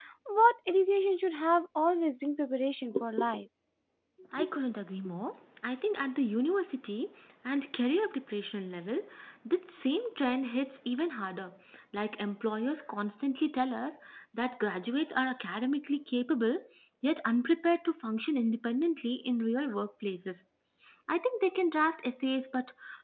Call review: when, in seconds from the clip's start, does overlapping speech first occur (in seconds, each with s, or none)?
none